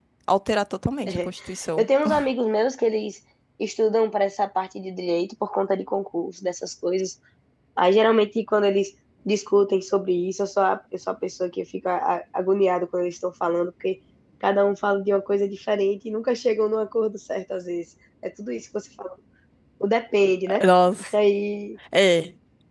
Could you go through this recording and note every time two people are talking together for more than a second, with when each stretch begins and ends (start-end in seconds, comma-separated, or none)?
none